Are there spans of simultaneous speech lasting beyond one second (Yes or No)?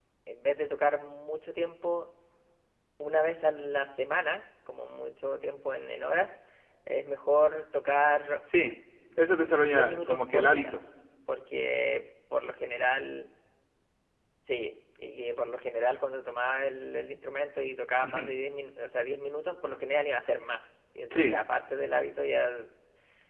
Yes